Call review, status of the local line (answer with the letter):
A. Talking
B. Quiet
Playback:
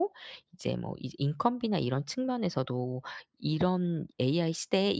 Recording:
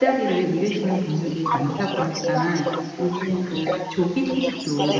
A